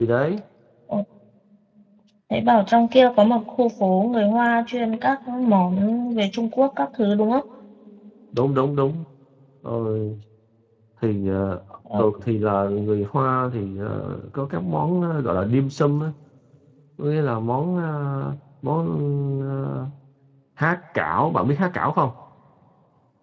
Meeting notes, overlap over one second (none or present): none